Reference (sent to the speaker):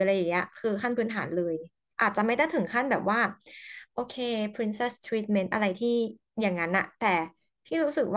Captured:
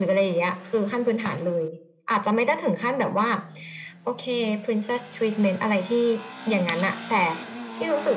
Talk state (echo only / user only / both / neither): echo only